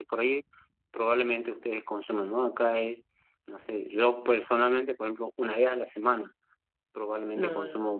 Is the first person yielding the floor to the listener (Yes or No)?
No